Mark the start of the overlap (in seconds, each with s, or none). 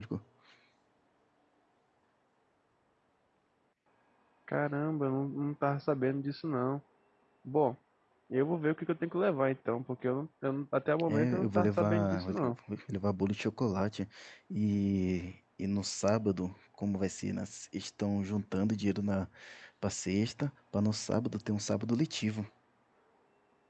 11.1 s